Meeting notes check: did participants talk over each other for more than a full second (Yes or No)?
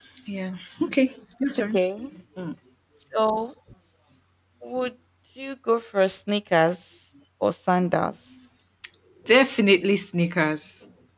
No